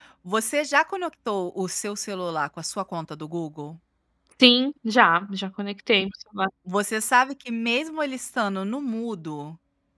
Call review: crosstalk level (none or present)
none